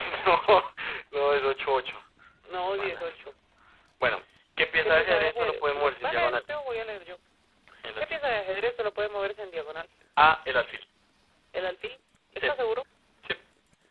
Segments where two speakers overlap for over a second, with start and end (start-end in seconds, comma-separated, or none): 4.8-6.4